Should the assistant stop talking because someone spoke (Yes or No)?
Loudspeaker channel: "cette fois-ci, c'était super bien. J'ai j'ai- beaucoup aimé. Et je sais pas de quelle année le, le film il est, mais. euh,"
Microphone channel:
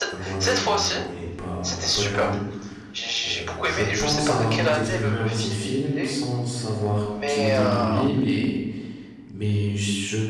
Yes